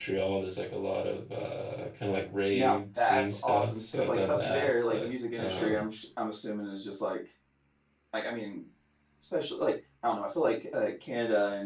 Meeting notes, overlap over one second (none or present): present